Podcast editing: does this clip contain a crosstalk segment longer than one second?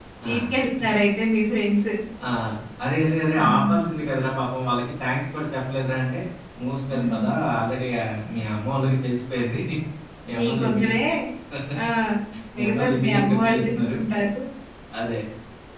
Yes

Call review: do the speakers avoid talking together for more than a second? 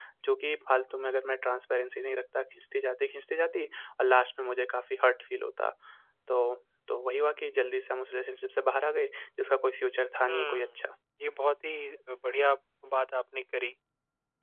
Yes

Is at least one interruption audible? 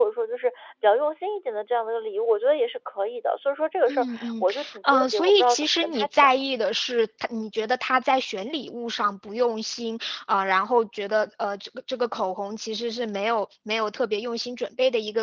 Yes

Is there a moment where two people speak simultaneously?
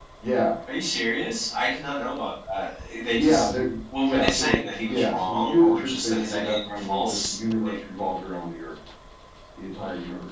Yes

